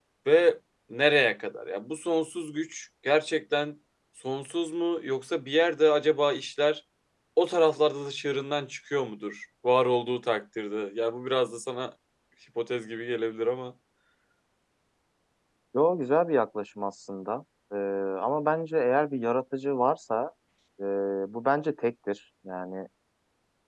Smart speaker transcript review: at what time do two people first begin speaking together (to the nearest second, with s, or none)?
none